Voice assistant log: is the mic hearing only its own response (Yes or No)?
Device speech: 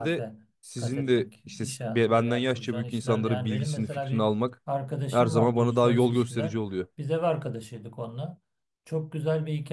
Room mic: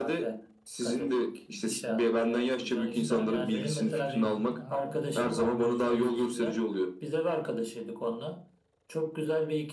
No